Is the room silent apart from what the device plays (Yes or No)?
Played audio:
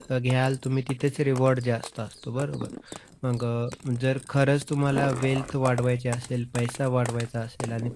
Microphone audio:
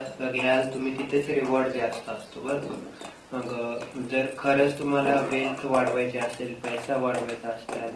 Yes